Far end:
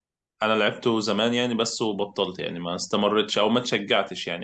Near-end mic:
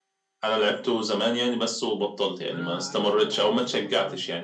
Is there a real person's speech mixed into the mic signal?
Yes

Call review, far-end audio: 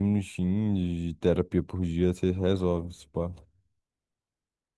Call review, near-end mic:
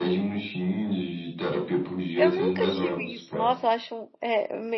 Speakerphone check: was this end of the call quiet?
No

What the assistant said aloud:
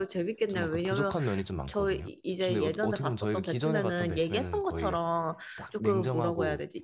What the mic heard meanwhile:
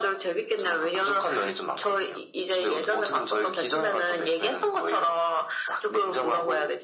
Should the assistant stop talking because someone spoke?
No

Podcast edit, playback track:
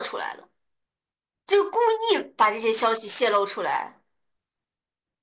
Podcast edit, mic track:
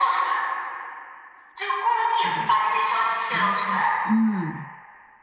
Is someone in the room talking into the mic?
Yes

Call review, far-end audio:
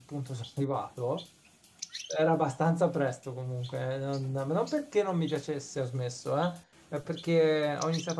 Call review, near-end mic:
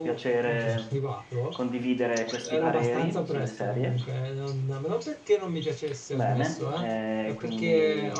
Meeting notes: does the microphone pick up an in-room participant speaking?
Yes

